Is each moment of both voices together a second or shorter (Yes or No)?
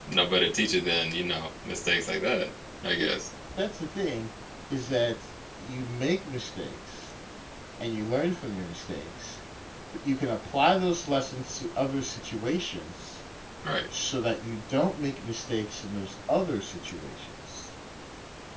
Yes